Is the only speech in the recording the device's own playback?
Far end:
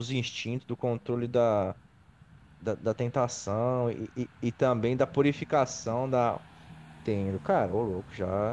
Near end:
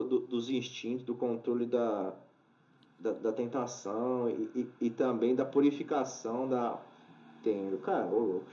Yes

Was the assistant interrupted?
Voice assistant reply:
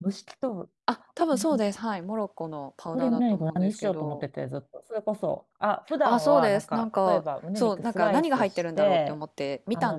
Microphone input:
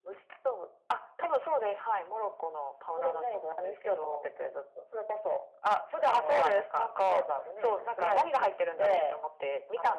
No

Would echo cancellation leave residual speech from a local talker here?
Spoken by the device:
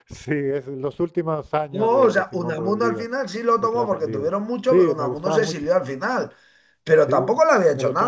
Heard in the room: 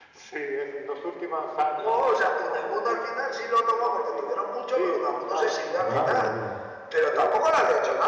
Yes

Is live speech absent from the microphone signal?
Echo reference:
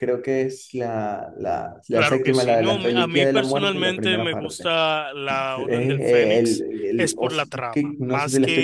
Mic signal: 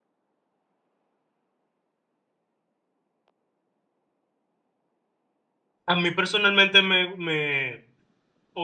No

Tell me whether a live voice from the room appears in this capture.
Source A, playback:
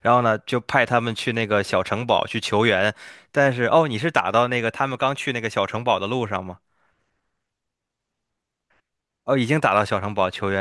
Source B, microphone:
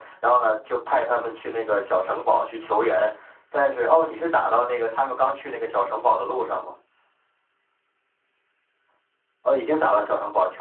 No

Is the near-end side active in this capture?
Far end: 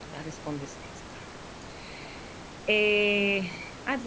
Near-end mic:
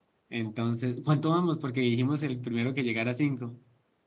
Yes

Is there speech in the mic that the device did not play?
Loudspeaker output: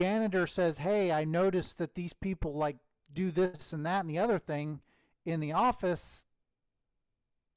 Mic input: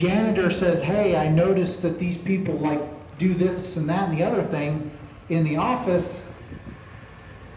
No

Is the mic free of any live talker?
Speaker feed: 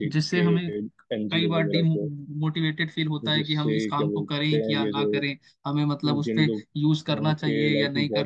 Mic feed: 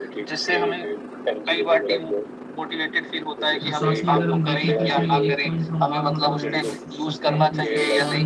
No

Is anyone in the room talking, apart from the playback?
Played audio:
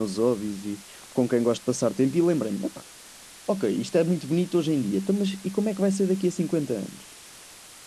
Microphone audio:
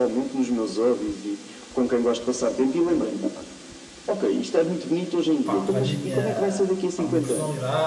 Yes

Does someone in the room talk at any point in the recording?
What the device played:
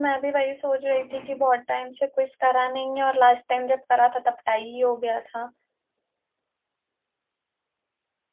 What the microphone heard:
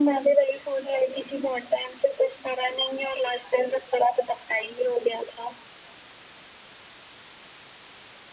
No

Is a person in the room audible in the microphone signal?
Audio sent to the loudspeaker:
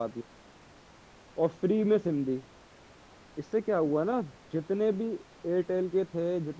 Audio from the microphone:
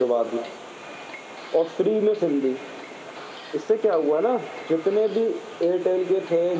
No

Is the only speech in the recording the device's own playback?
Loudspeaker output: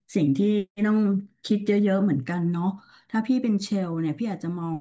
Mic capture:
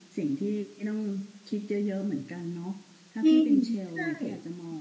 No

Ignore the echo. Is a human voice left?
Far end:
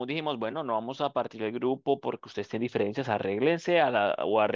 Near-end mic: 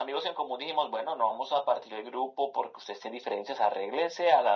No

